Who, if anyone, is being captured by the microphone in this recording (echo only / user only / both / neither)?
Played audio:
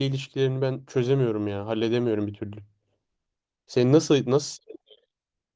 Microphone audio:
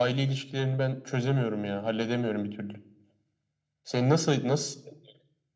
echo only